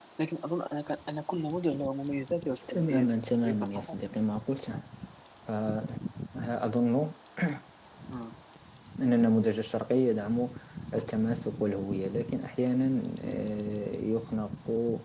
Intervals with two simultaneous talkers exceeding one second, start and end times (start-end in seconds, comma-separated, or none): 2.7-4.0